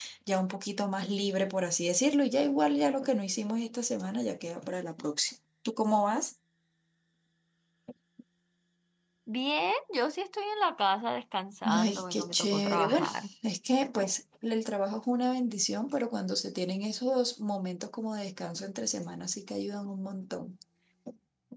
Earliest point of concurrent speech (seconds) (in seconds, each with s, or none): 11.7 s